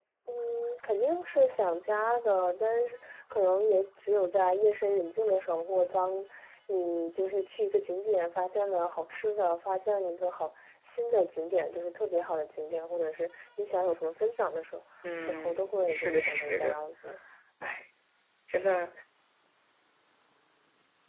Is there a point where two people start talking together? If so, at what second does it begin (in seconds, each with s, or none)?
15.0 s